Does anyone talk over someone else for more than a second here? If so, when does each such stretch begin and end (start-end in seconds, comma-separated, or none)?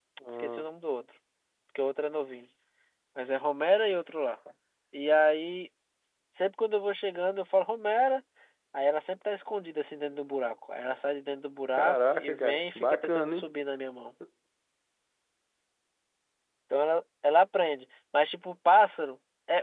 11.8-13.4